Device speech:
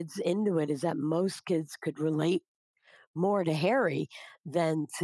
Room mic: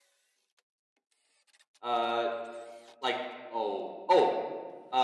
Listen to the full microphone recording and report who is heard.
user only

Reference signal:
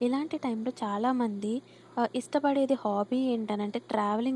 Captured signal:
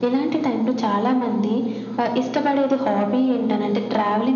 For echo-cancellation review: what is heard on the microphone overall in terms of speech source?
echo only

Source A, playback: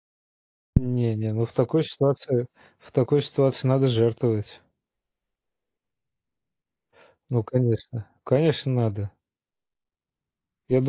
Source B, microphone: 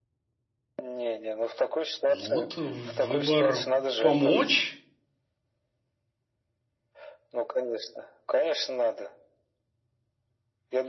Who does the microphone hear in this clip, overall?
both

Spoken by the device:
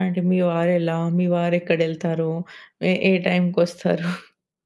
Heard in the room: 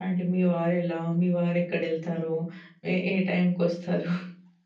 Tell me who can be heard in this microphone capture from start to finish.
echo only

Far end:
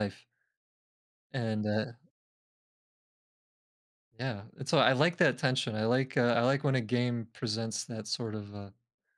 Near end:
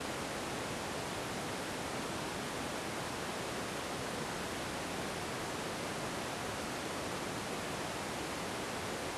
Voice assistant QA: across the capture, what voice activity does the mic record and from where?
neither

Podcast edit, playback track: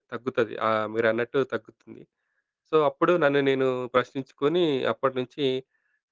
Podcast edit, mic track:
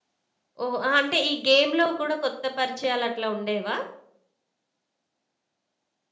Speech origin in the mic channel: user only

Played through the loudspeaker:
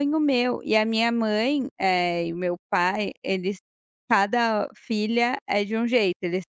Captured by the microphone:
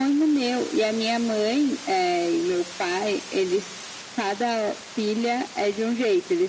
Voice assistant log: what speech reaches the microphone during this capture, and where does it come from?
echo only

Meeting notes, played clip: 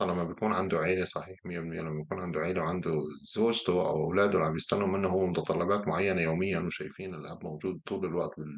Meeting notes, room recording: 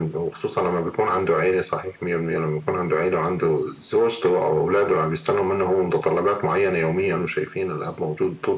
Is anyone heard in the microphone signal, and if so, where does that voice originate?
echo only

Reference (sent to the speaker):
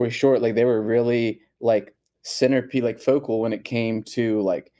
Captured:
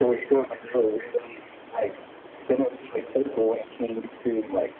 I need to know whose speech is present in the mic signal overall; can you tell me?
echo only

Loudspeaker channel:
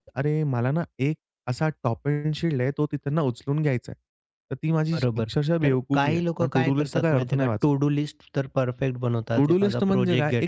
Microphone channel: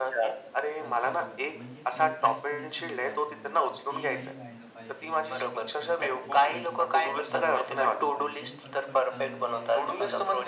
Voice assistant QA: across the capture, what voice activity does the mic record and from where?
both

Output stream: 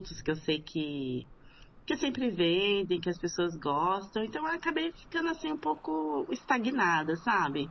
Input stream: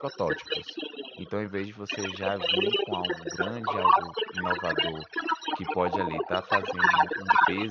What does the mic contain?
both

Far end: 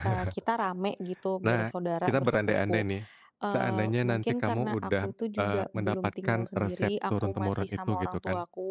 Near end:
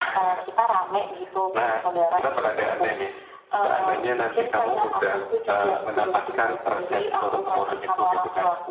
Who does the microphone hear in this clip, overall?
echo only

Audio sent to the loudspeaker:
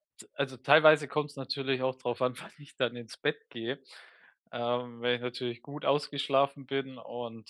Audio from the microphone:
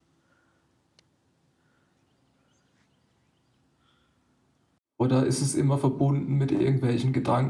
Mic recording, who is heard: user only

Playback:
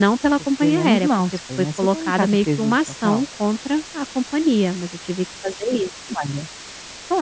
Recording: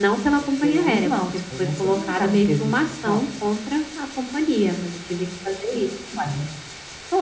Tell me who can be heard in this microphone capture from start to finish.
echo only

